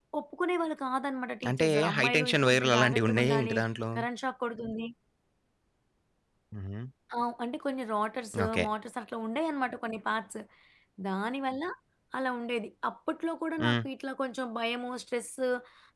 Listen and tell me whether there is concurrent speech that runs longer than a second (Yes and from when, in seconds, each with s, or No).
Yes, from 1.5 s